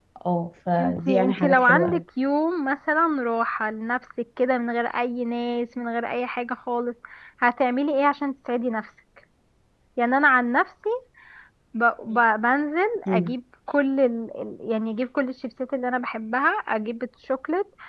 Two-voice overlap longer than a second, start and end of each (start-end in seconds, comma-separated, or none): 0.8-2.0